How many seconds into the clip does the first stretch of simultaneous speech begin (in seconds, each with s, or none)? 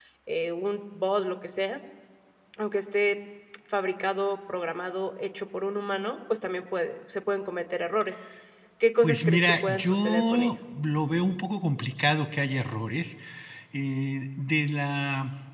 9.0 s